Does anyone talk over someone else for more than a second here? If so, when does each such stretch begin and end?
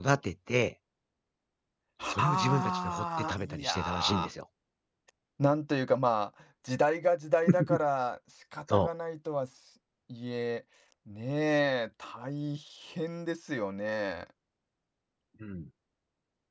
2.1-4.3

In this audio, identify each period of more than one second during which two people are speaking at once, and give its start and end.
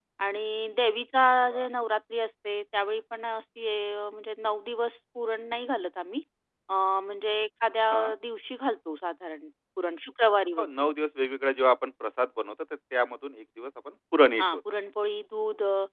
none

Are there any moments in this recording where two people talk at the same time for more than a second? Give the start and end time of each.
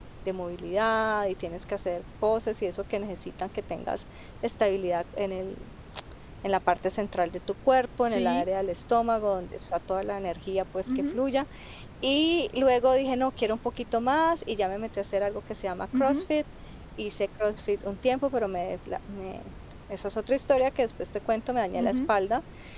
none

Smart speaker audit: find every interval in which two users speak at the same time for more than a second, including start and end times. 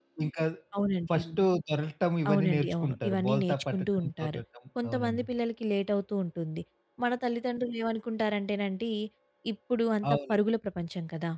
2.3-4.4

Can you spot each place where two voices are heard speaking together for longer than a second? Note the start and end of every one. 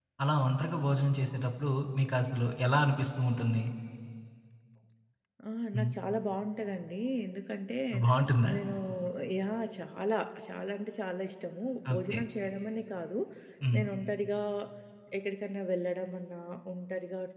none

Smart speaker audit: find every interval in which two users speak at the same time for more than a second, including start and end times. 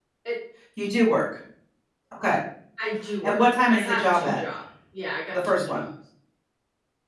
3.2-4.4

